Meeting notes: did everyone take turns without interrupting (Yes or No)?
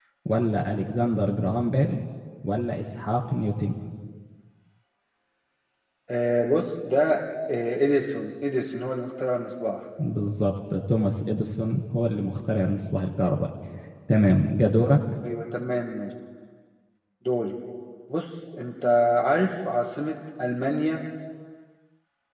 Yes